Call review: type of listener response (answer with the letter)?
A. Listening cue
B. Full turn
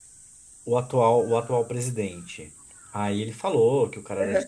A